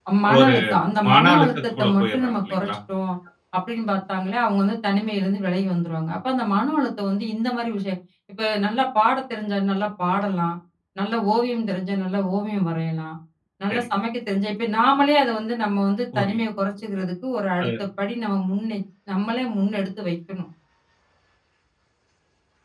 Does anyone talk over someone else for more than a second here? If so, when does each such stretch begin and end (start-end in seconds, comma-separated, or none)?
1.1-2.8